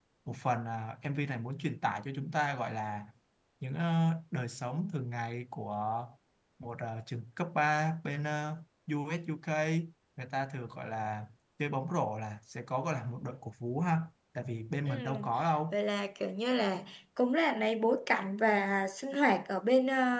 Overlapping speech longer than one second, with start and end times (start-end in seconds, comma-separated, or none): none